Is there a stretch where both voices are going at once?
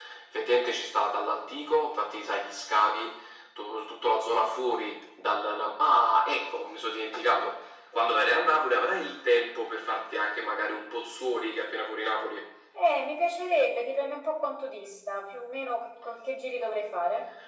No

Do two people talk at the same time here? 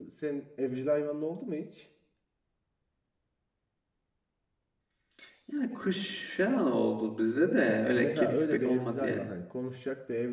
Yes, from 8.0 s

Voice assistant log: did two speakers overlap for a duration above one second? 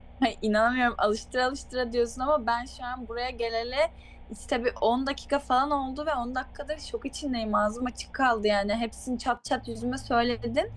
No

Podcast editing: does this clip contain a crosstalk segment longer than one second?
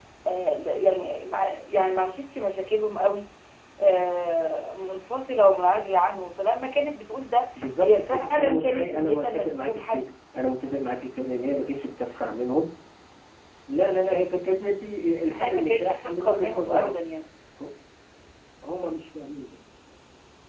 Yes, from 7.8 s

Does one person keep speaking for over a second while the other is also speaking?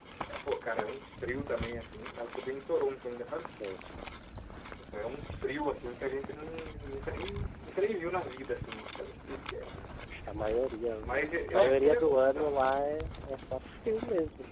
Yes, from 10.9 s

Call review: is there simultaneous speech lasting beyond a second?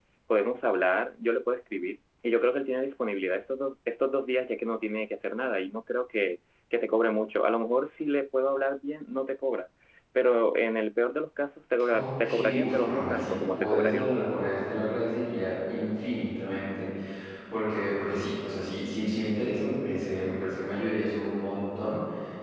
Yes, from 11.9 s

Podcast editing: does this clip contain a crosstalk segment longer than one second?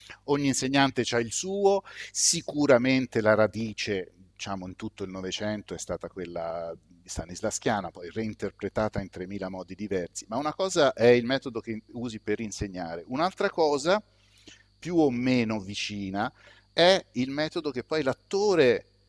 No

